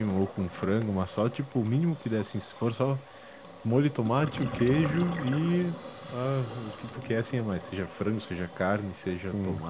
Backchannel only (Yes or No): Yes